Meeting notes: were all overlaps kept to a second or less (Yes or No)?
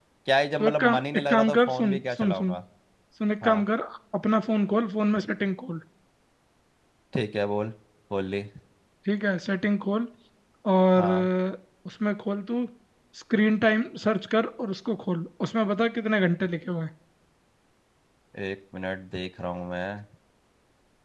No